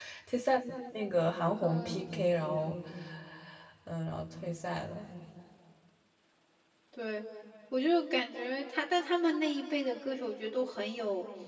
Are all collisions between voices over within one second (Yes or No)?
Yes